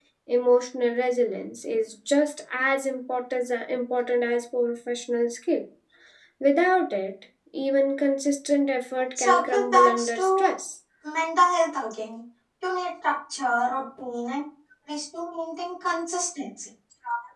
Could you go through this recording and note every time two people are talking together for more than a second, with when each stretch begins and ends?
9.2-10.5

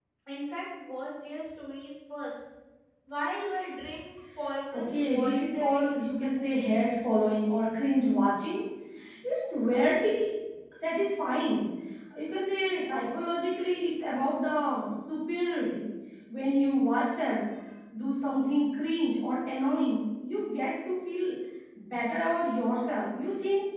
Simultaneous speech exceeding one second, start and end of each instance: 4.7-6.0

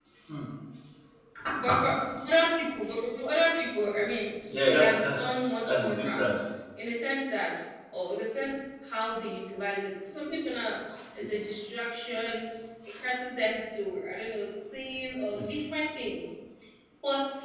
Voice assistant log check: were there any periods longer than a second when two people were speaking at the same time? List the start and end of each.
4.7-6.2

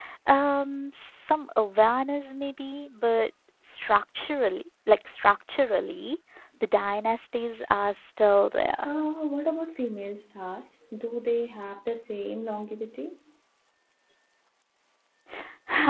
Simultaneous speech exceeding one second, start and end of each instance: none

